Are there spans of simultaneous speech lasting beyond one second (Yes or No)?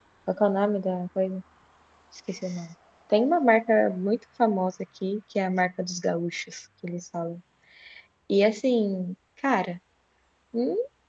No